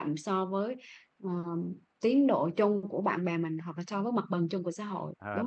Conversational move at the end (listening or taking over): taking over